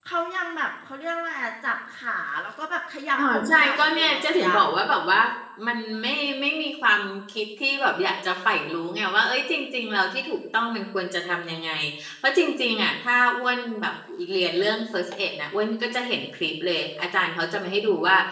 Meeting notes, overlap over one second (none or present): present